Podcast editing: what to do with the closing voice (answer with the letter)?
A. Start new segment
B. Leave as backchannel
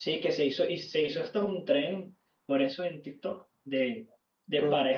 B